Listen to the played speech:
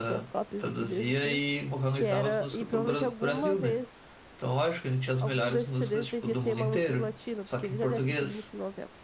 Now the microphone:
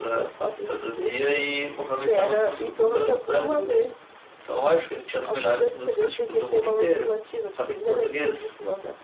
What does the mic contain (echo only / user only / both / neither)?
echo only